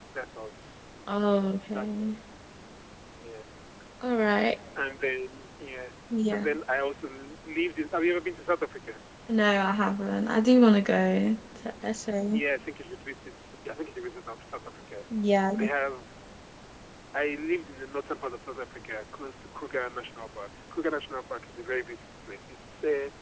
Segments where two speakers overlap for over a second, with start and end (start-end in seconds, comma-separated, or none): none